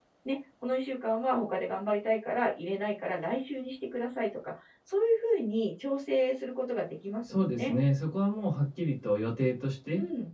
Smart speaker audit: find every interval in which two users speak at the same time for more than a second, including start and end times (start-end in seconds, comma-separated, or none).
none